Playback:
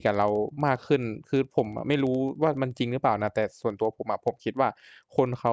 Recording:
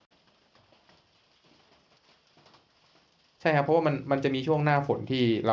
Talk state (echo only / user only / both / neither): user only